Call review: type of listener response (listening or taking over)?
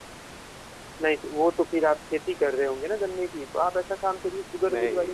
listening